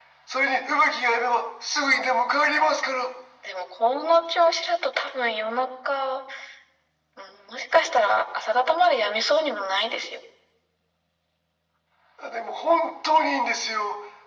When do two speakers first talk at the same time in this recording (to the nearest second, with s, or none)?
none